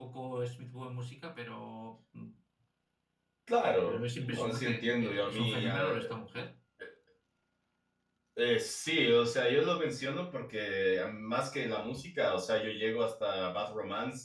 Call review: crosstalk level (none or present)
present